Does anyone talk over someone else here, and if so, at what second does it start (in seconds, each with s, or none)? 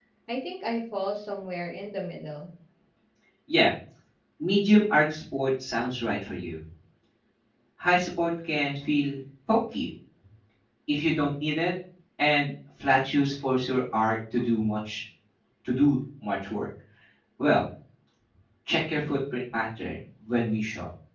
none